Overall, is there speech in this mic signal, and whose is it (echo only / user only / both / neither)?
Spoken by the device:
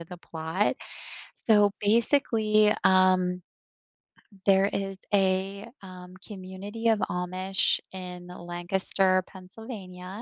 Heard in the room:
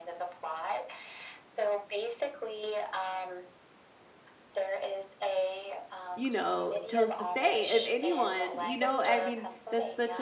both